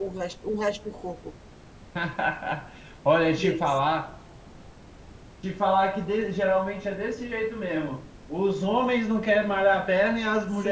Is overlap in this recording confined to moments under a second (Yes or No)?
Yes